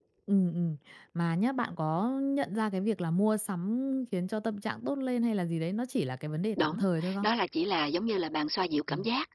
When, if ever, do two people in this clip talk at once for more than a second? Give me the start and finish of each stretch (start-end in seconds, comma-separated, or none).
none